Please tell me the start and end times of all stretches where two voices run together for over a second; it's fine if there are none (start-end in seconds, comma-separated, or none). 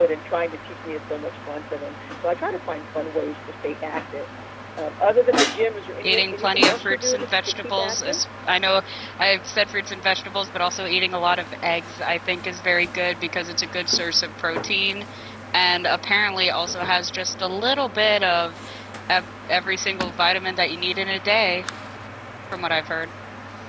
6.0-8.2